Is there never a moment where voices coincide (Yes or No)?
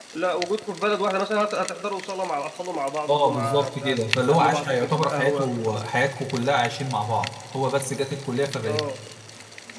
No